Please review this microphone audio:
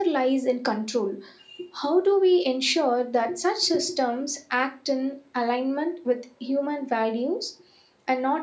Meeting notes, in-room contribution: none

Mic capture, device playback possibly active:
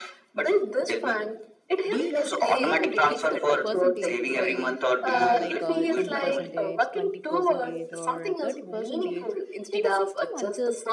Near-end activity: present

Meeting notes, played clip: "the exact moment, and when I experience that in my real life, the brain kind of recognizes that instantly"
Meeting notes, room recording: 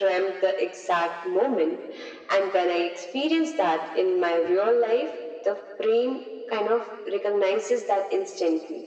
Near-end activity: none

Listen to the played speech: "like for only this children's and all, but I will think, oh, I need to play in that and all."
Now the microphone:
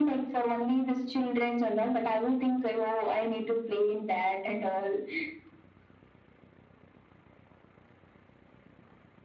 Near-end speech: none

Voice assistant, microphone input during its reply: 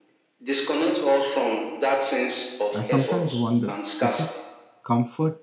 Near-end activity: present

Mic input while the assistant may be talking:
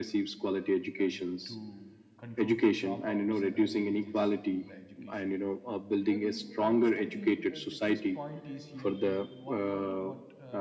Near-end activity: present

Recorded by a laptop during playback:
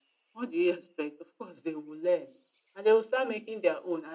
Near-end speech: none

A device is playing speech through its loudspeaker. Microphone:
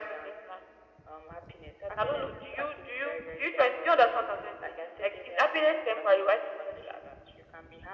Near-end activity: none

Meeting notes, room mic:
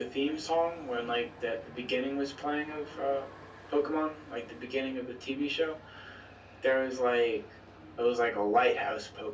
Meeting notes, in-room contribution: none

